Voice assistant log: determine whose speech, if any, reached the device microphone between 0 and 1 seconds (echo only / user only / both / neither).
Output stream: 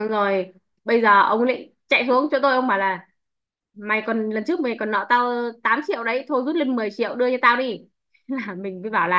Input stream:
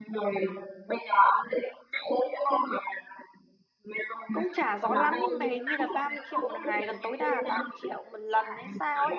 echo only